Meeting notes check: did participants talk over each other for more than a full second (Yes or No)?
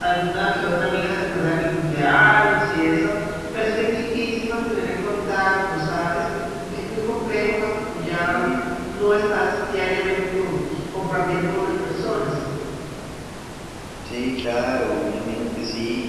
No